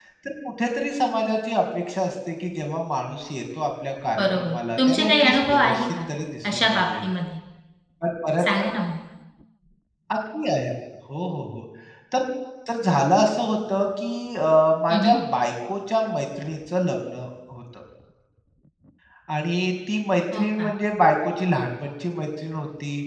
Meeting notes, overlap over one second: present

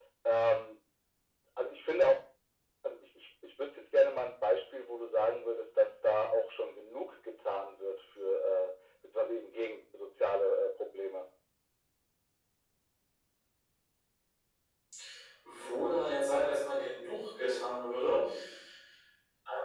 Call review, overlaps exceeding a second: none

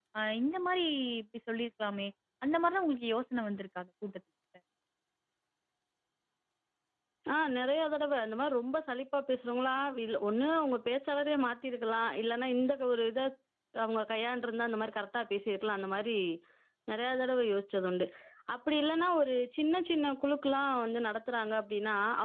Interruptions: none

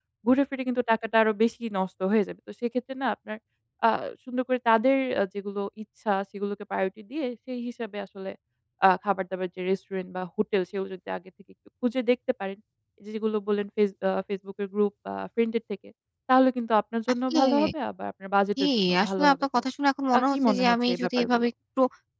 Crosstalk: present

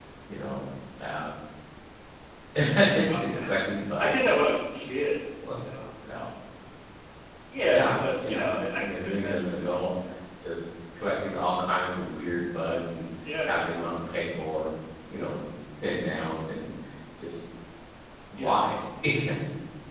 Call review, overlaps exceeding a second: present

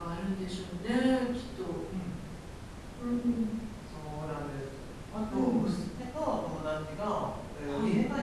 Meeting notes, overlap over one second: none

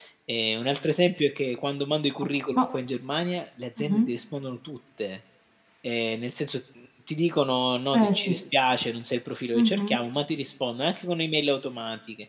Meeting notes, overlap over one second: none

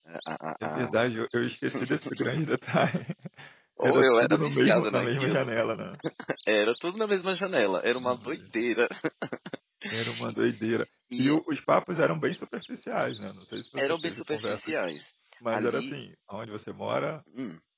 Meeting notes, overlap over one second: present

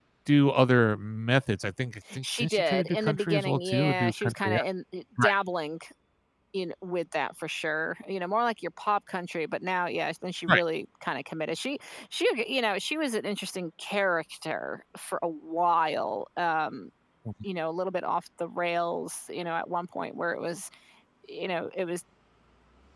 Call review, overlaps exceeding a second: present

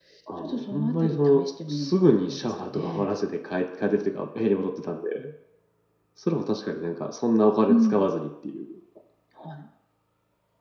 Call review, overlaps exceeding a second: present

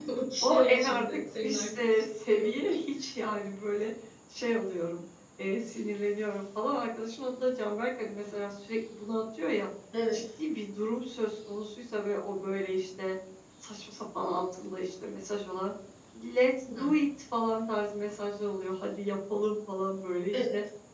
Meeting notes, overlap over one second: present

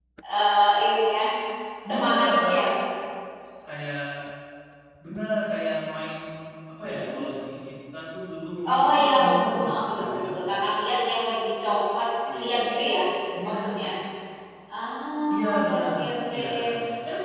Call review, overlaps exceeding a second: present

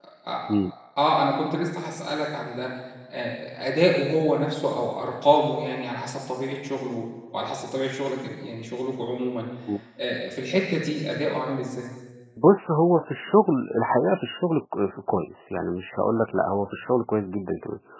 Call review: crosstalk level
none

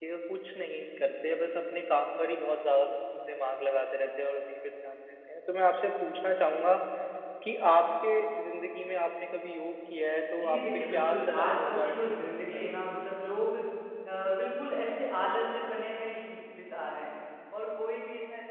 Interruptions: present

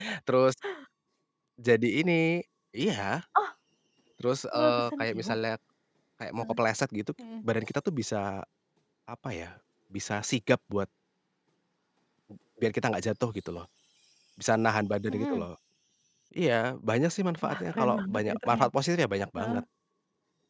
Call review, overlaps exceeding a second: present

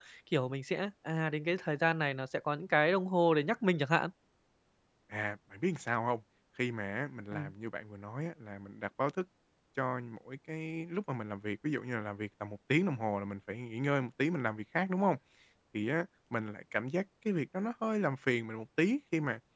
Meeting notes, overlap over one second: none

